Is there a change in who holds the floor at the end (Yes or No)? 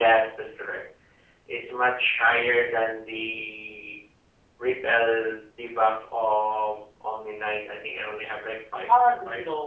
Yes